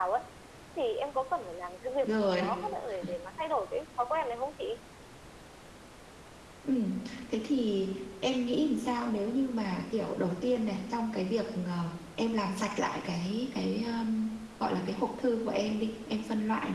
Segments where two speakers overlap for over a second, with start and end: none

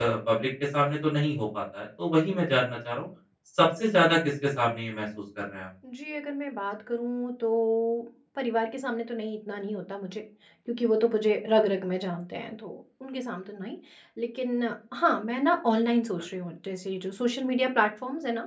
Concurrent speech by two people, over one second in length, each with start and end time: none

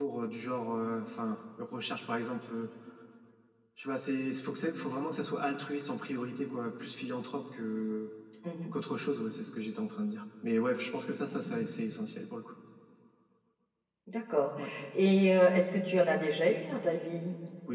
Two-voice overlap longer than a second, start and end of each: none

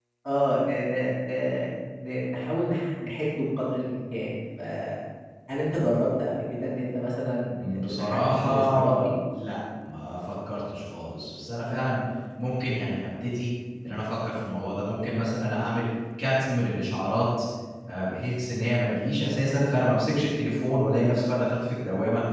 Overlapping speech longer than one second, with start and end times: 7.6-9.1

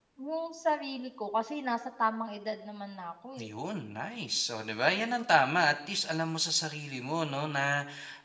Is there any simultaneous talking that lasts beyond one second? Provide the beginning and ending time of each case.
none

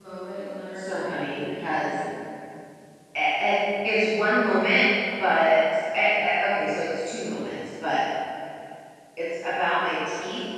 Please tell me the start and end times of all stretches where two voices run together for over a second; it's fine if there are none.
0.8-2.0

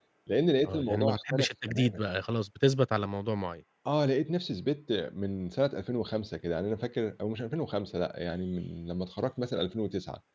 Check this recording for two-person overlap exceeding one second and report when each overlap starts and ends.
0.6-2.0

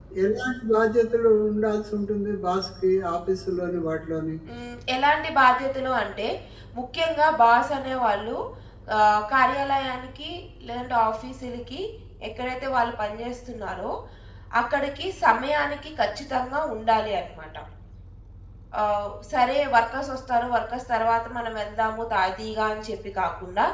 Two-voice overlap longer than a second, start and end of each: none

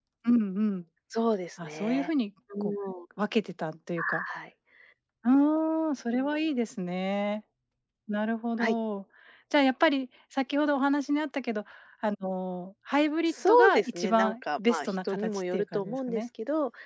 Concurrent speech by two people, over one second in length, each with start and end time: 13.5-16.2

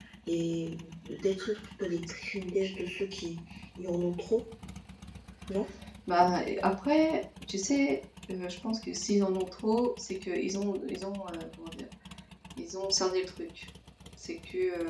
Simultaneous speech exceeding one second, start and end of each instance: none

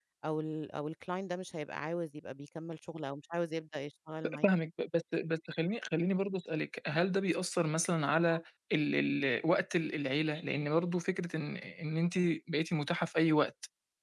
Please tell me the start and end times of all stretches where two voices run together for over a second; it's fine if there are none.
none

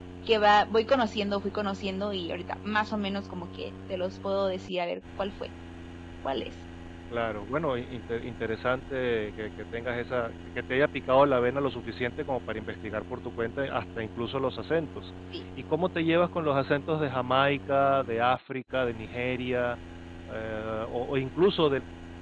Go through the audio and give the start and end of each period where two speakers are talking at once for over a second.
none

